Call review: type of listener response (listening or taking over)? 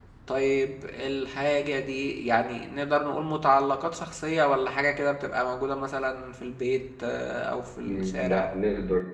taking over